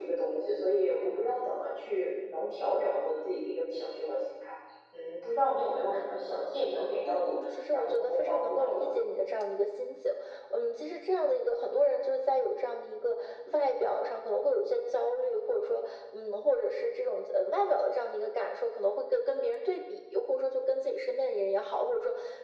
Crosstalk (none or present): present